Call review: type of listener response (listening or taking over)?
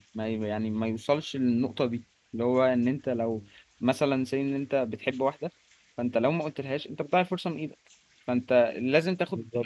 listening